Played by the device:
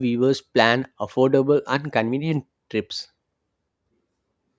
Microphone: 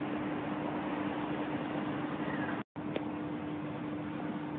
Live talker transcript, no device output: none

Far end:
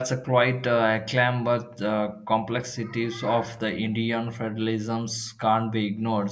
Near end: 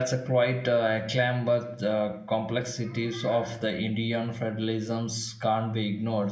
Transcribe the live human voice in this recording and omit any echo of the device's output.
none

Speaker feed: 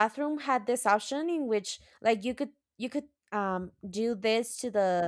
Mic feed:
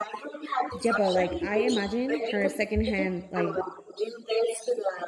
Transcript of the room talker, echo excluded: Yeah, but like I imagine her secondhand, like,

